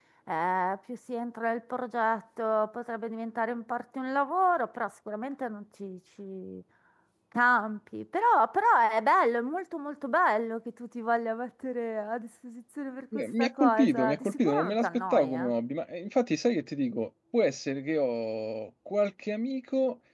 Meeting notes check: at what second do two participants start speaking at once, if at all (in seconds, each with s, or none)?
13.1 s